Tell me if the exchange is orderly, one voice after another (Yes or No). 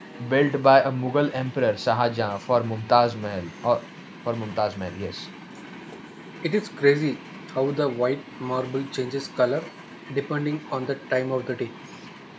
Yes